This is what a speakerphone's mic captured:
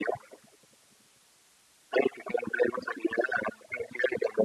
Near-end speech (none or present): none